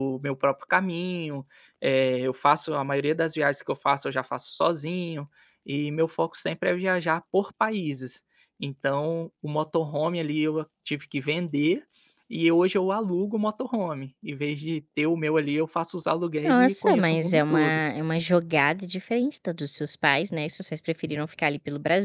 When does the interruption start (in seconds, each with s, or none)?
16.4 s